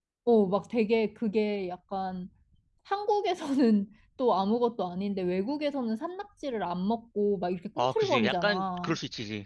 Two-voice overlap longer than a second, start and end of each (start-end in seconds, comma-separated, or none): 7.8-9.0